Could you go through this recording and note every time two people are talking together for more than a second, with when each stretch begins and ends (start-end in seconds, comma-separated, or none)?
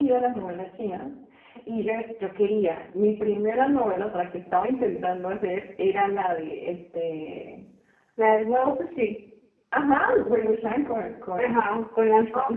none